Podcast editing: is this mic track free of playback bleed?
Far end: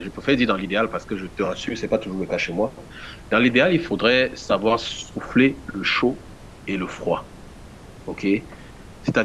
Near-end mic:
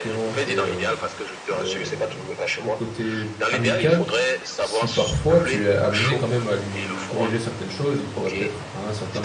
No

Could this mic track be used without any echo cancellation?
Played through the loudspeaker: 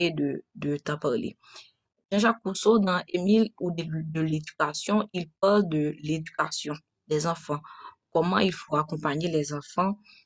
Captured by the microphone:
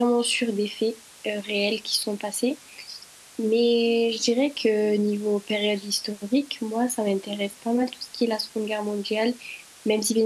Yes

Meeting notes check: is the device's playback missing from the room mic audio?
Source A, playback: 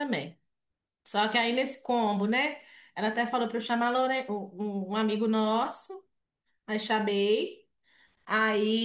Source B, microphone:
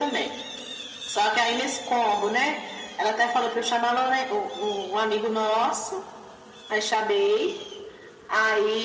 No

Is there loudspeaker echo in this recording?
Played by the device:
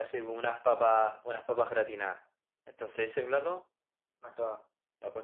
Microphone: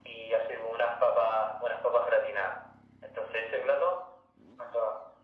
Yes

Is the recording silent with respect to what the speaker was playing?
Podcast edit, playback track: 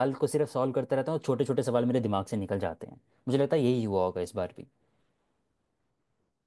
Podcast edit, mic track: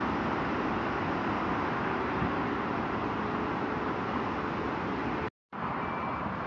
Yes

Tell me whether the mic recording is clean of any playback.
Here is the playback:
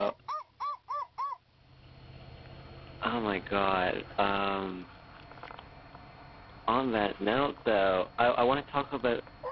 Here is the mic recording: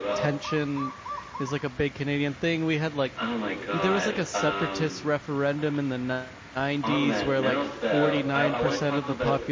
No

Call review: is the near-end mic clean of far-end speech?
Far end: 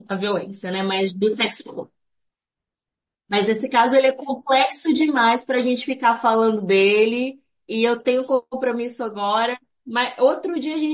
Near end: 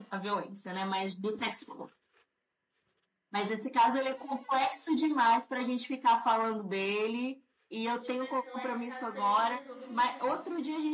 No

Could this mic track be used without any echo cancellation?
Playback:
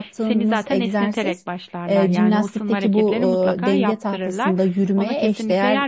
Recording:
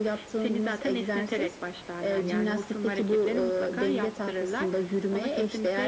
No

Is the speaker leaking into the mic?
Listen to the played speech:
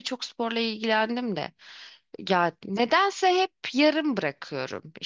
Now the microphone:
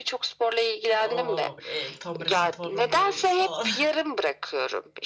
Yes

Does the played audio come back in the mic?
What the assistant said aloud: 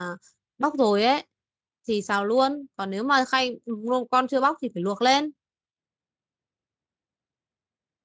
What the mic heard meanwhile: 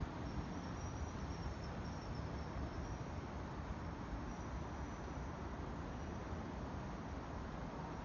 No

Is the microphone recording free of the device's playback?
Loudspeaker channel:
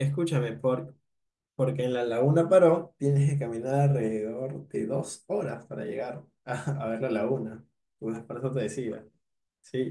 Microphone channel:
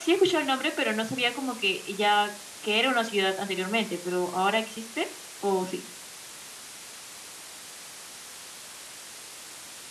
Yes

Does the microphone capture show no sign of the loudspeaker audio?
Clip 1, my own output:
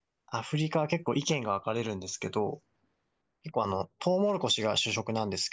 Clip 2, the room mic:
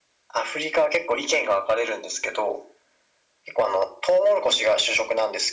No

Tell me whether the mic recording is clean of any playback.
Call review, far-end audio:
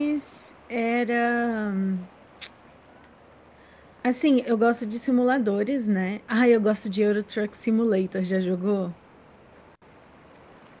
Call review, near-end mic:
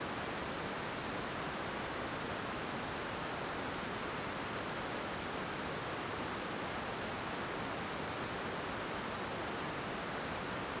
Yes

